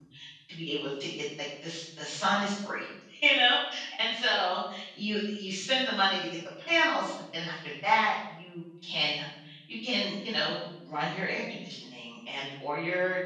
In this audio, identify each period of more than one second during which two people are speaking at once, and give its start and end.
none

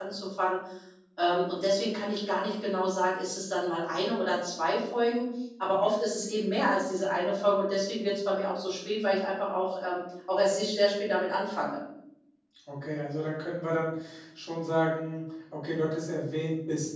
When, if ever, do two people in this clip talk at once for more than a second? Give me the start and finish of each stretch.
none

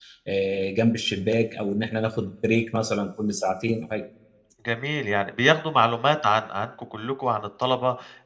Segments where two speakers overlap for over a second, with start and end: none

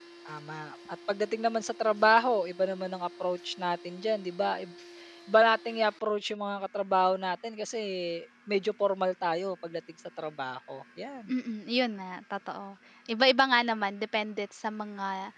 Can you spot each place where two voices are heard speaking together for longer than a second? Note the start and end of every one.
none

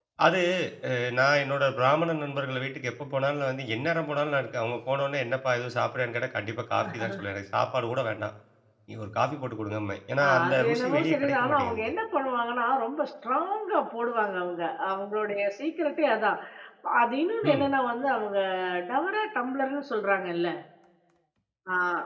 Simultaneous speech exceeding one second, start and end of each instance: 10.3-11.9

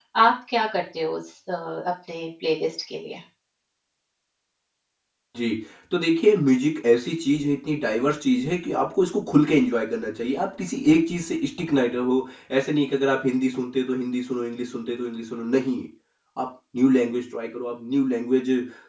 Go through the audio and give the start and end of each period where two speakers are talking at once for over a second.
none

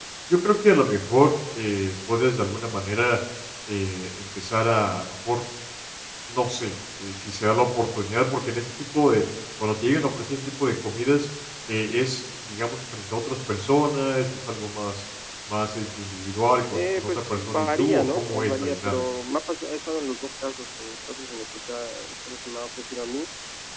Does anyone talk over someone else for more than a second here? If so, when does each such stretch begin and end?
16.7-19.0

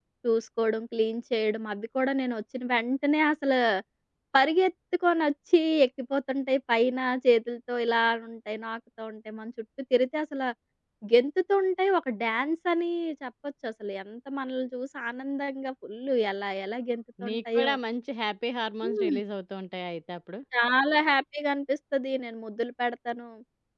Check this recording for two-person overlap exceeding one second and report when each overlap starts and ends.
none

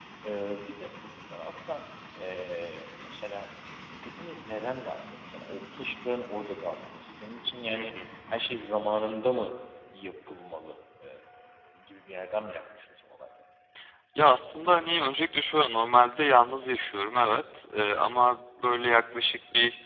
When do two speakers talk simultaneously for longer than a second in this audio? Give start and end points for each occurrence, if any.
none

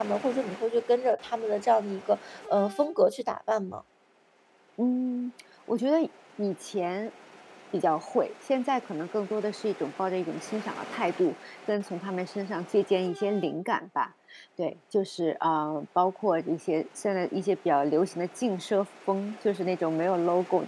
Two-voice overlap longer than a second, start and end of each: none

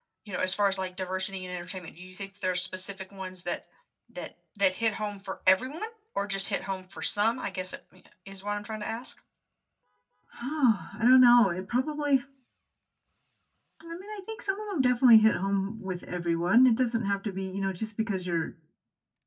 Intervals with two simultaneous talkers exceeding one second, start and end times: none

